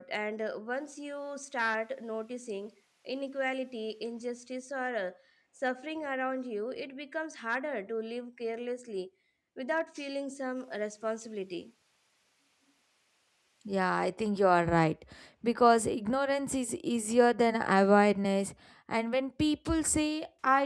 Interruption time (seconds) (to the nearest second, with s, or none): none